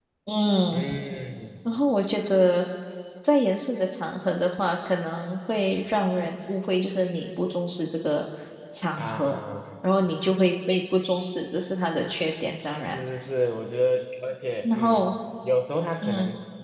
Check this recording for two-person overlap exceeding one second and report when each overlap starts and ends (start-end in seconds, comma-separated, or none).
none